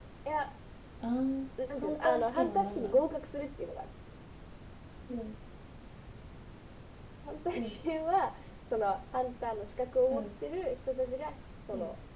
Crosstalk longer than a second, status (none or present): present